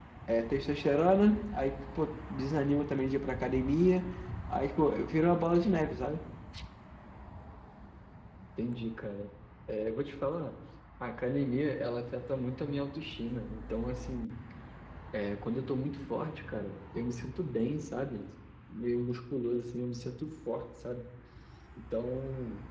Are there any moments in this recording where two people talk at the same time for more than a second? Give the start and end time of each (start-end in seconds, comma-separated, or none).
none